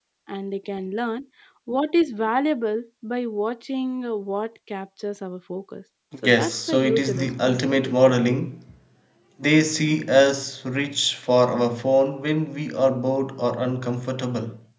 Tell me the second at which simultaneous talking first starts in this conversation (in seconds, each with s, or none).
6.1 s